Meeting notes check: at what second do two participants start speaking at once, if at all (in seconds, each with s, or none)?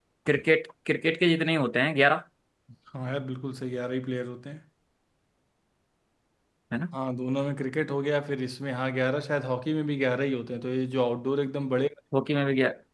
none